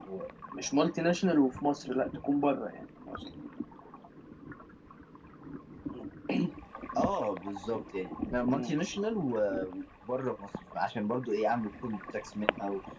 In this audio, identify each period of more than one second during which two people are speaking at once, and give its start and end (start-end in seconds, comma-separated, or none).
none